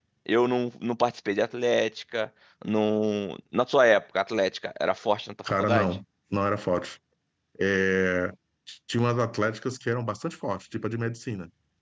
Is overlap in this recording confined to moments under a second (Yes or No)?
Yes